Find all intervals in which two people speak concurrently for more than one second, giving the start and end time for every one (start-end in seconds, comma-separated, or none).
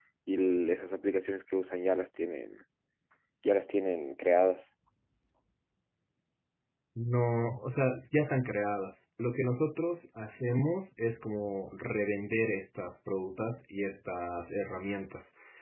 none